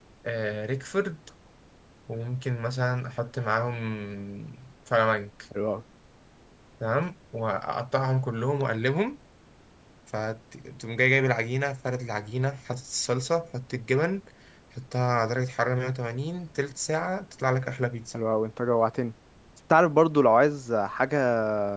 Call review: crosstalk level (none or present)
none